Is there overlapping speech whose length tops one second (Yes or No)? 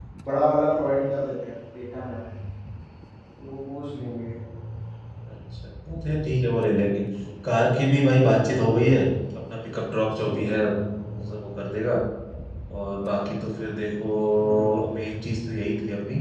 No